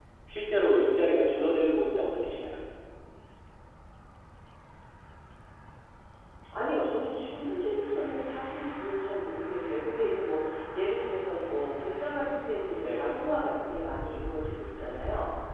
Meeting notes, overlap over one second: none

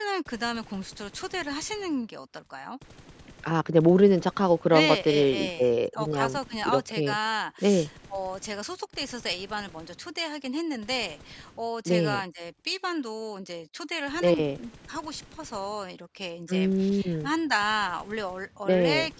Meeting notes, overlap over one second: present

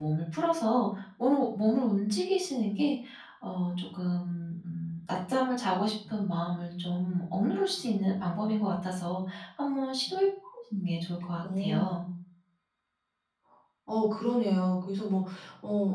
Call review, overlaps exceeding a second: none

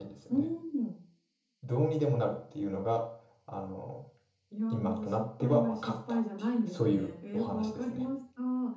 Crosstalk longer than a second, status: present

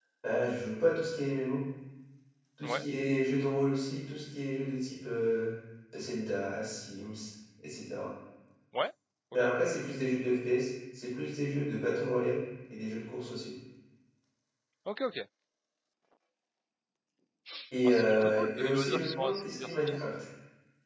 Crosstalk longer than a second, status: present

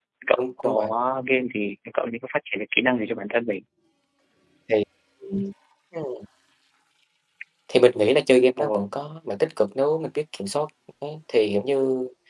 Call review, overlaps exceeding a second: none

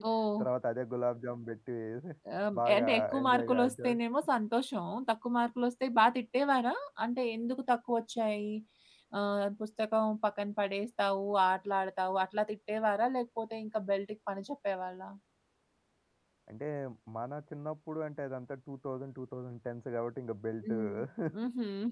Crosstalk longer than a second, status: present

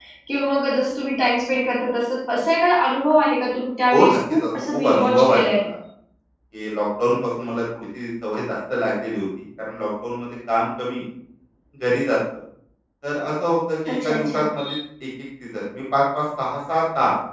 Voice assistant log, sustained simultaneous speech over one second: present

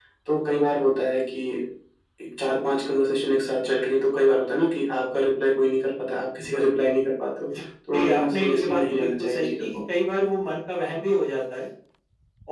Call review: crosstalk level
present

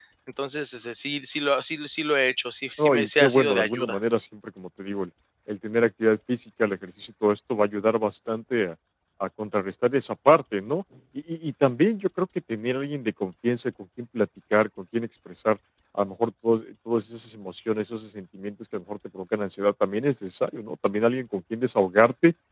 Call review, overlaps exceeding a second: present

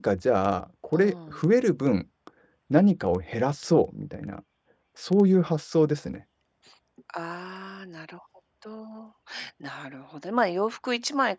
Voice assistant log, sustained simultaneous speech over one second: none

